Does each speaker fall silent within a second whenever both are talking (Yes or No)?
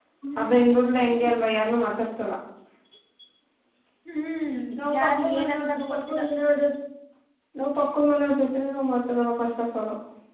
No